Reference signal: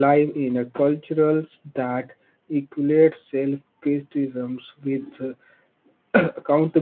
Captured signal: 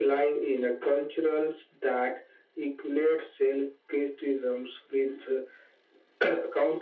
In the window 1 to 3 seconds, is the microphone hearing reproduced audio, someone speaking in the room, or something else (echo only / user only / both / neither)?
echo only